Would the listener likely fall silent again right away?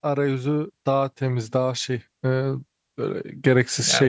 No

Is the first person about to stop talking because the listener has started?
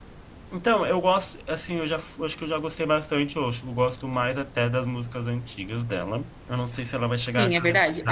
Yes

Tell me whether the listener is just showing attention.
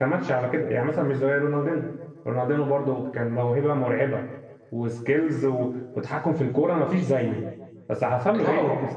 Yes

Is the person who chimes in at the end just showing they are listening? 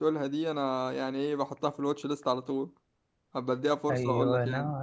No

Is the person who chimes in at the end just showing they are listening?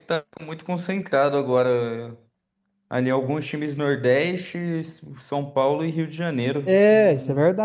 No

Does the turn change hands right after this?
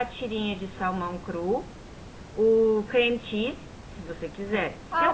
Yes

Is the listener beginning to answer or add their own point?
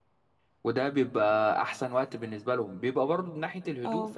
No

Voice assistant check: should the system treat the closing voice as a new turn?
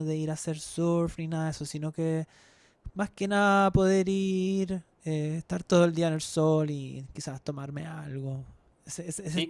Yes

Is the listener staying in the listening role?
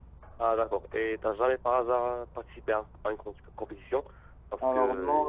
No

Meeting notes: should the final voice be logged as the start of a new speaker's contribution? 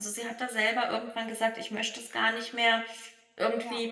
No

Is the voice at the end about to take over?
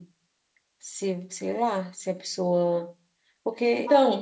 Yes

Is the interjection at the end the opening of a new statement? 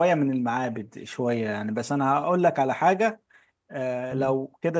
No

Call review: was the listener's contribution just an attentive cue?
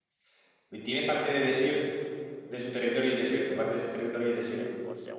No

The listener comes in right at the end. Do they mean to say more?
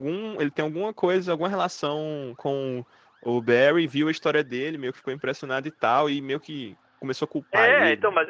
Yes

